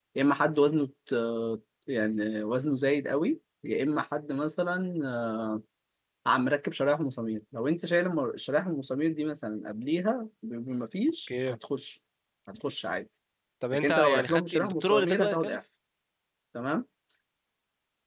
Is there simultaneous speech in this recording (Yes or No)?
Yes